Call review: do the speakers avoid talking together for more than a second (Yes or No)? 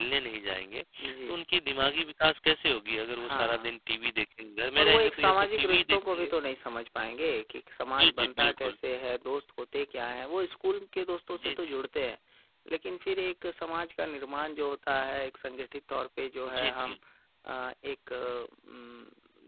No